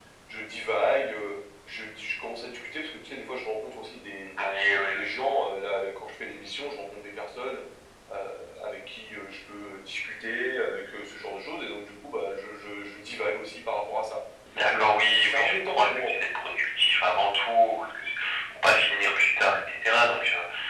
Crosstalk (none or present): present